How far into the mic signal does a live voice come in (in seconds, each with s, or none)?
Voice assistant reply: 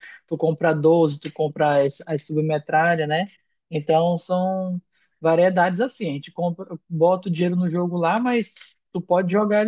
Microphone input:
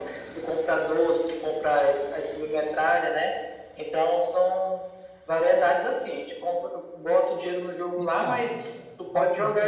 8.0 s